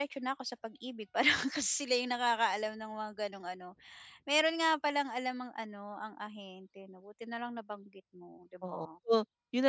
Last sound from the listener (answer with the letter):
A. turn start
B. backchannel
A